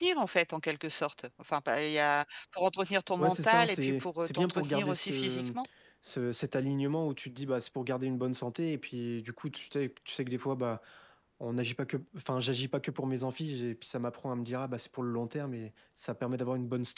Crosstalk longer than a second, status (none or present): present